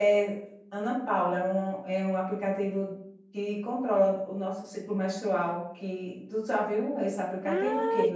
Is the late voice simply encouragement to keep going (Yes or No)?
No